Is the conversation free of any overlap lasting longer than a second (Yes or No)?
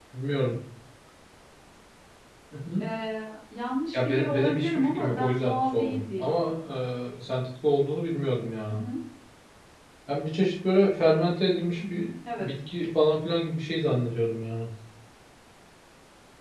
No